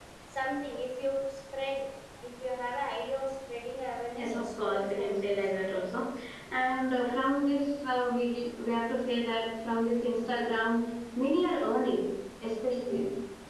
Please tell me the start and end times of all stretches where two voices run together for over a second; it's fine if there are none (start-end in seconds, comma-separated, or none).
4.2-5.5